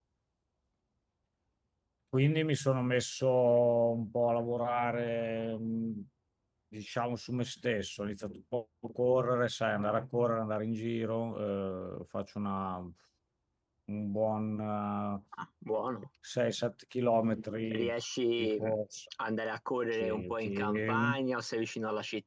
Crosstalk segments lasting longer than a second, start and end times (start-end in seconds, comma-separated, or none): 19.9-21.2